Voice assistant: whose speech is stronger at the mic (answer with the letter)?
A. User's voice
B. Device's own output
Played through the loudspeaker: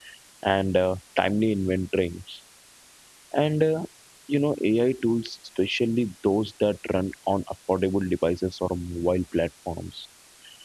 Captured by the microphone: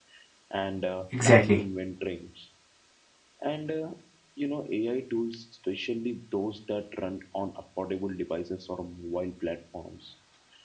A